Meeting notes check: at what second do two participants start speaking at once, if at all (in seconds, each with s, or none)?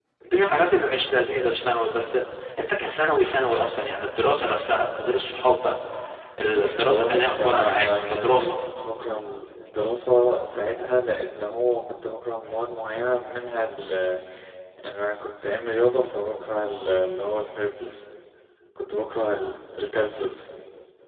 6.9 s